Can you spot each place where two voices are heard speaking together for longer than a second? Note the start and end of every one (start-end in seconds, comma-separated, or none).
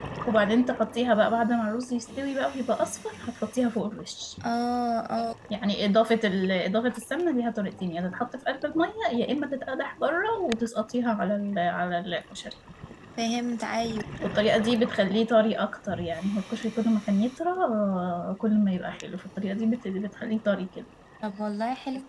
none